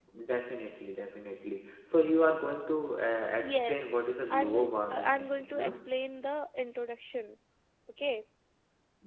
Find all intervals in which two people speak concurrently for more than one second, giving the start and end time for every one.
4.3-5.8

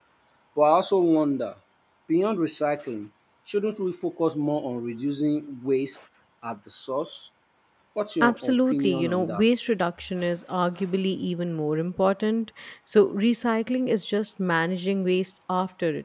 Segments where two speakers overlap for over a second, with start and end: 8.2-9.4

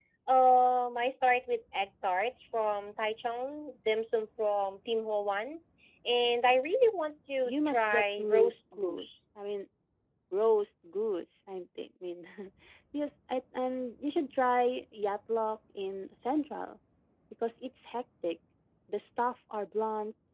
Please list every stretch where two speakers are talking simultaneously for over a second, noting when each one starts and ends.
7.5-9.1

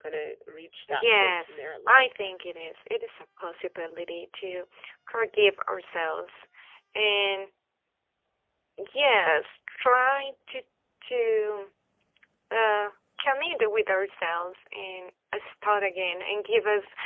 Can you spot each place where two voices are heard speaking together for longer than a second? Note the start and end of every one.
1.0-2.3

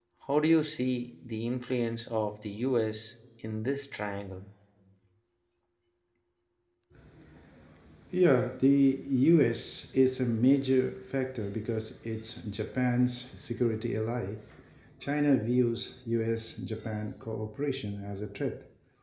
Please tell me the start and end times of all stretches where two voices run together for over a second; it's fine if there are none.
none

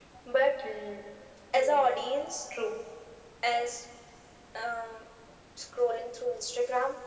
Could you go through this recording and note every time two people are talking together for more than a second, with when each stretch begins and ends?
none

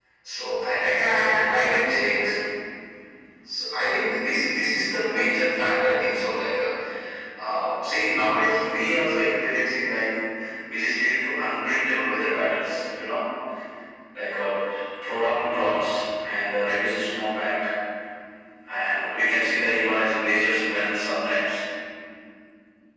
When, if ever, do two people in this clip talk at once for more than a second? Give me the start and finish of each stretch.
0.9-2.3

